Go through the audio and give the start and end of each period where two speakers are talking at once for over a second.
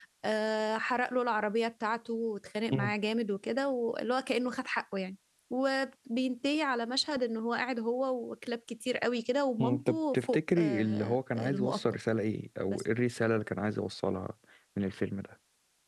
9.6-11.8

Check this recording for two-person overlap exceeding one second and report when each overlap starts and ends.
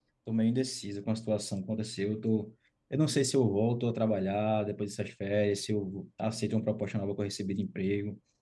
none

